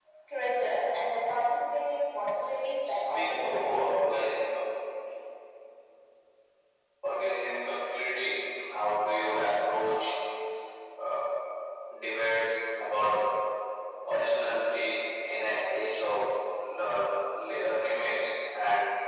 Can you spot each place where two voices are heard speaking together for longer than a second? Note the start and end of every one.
2.9-4.2

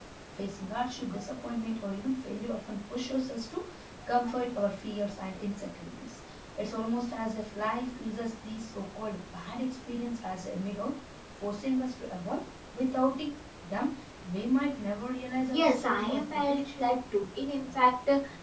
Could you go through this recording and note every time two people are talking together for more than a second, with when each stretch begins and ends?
15.5-16.9

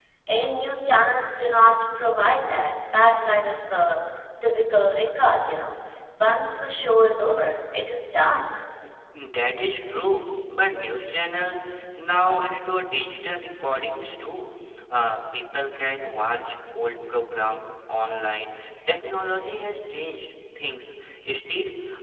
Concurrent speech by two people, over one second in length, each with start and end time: none

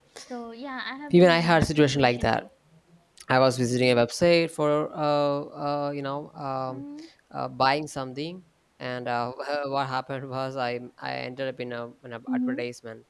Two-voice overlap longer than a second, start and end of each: 1.1-2.5

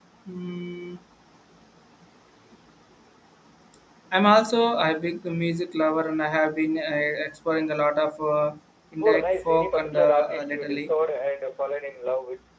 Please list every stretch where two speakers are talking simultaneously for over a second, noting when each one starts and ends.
9.0-10.9

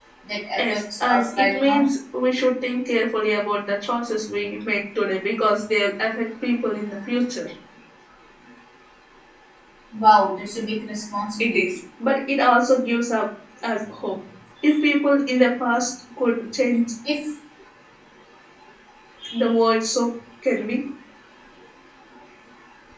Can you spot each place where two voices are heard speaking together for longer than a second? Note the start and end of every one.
0.6-1.9

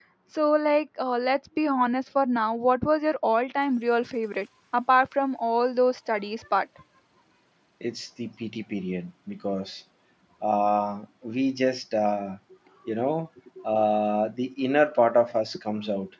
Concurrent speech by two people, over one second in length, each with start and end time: none

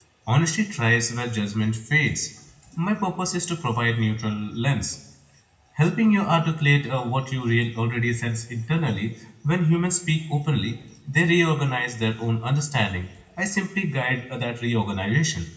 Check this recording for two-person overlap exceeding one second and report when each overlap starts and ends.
none

